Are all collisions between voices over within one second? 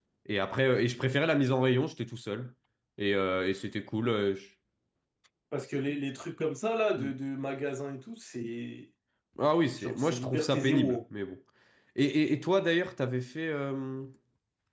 No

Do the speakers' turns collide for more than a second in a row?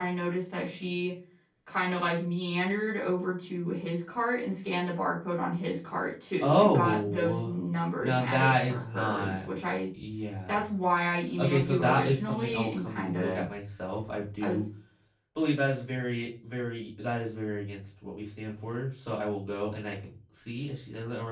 Yes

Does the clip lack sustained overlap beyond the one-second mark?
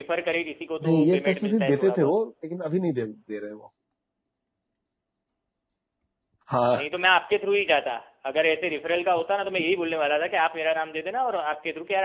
No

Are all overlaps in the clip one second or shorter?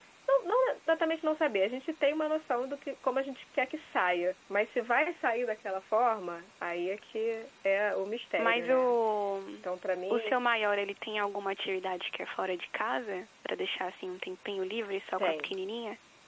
Yes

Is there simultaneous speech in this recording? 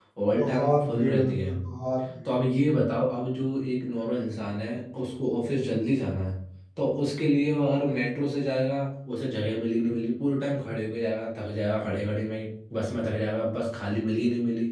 Yes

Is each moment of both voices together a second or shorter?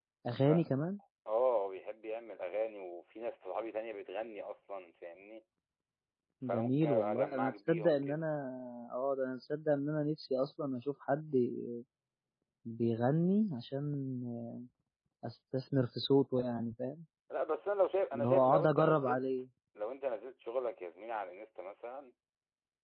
No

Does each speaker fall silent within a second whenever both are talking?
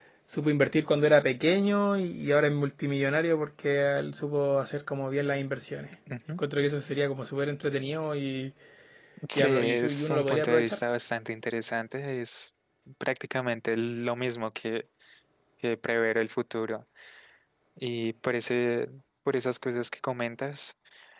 No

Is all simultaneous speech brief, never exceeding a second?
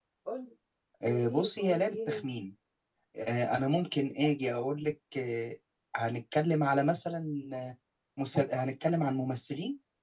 No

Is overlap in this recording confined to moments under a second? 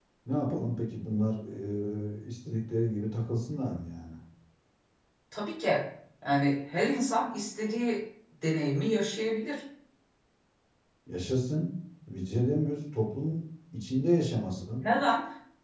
Yes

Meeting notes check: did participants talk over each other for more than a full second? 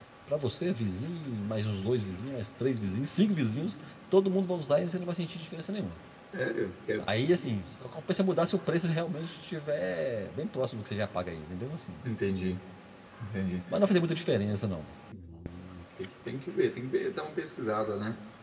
No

